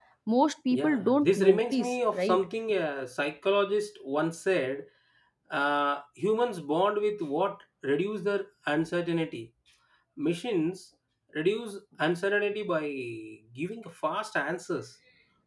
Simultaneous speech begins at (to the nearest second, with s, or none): 1 s